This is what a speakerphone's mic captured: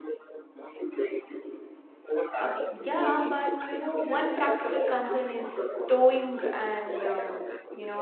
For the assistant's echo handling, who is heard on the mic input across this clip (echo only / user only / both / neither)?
both